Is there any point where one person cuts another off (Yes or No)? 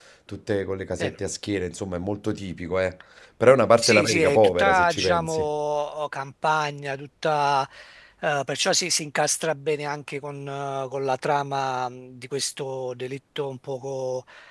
Yes